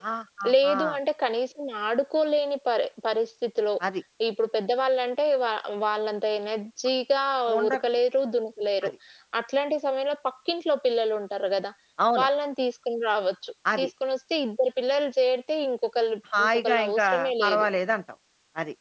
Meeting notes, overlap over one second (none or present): present